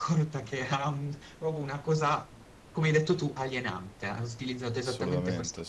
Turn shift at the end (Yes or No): No